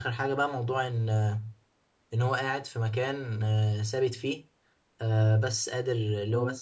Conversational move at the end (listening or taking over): listening